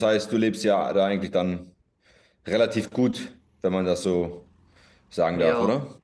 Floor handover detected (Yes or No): Yes